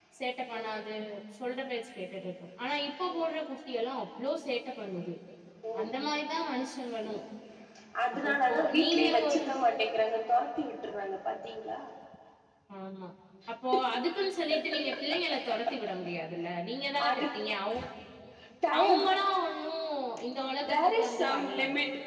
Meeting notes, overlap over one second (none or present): present